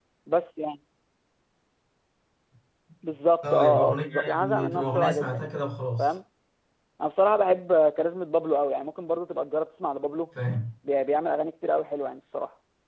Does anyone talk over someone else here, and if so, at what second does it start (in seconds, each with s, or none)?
3.4 s